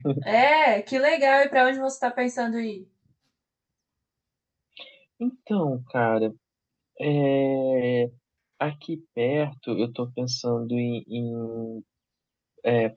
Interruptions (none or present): none